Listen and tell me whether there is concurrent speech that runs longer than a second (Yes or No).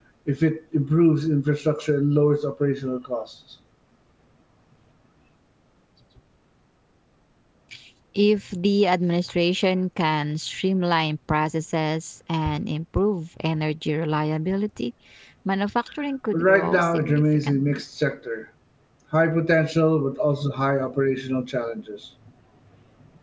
Yes